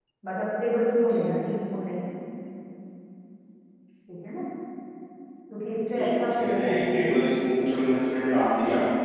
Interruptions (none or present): present